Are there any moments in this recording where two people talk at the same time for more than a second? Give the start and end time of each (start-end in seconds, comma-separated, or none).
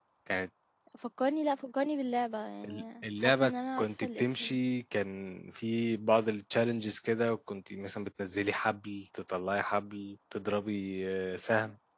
3.2-4.6